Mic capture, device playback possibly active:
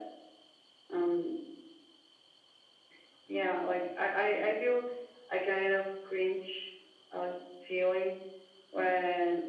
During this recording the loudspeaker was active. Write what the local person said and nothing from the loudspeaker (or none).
none